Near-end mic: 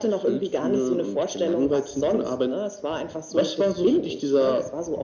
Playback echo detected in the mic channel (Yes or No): Yes